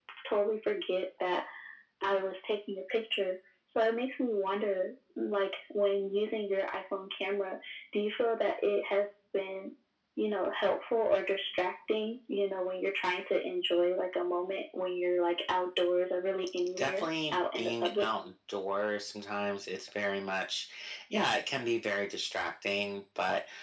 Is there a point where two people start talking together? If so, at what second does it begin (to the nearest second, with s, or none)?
17 s